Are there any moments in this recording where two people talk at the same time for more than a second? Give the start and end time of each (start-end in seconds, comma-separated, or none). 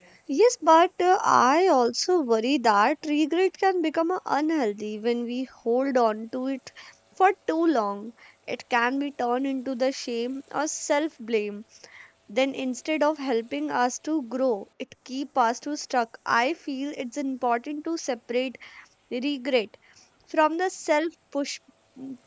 none